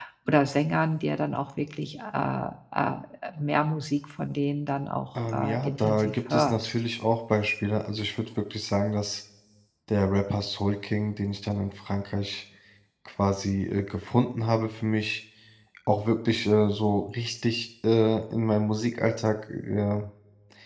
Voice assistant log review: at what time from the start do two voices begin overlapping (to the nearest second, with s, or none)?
5 s